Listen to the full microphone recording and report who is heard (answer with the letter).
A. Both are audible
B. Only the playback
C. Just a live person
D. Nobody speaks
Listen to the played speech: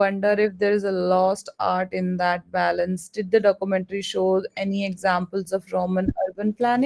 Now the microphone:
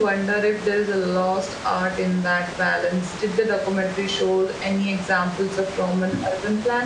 B